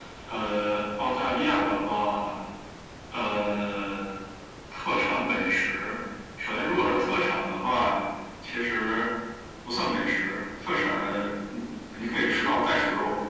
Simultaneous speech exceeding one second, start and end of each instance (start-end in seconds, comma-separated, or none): none